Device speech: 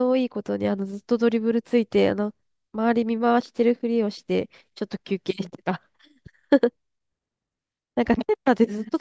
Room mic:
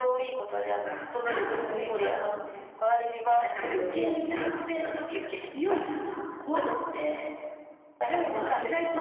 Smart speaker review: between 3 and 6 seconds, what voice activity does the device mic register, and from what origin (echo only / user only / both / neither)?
both